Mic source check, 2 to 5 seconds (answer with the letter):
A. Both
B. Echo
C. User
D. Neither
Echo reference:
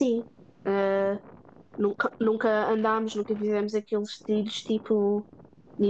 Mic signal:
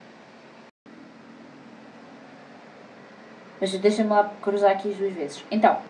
C